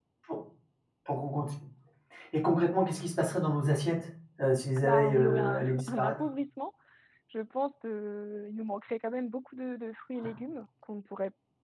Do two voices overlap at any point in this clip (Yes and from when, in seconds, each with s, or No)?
Yes, from 4.8 s